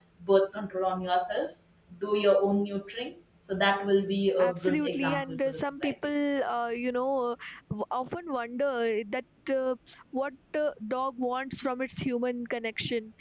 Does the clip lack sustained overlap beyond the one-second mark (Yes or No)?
No